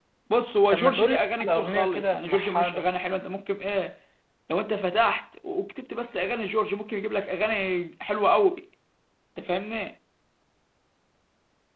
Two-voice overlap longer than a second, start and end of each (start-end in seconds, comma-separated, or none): 0.7-2.9